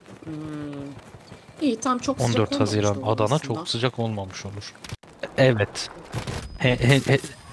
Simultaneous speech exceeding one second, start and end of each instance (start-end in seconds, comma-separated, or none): 2.2-3.7